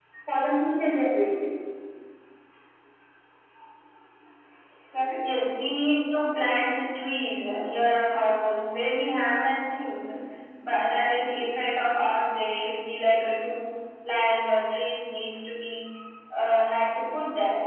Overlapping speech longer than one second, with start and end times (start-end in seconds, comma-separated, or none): none